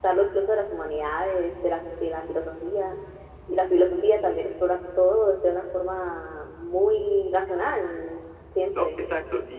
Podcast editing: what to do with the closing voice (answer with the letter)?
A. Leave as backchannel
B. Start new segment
B